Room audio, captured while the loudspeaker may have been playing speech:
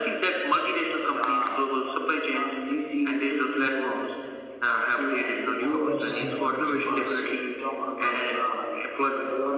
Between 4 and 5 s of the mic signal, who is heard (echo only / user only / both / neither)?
echo only